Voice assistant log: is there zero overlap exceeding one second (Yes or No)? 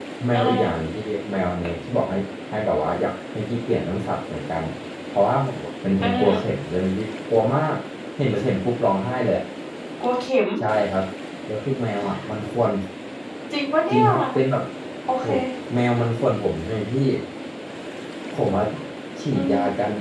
Yes